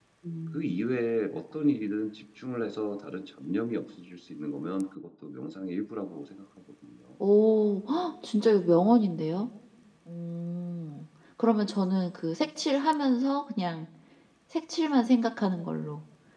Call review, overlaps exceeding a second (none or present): none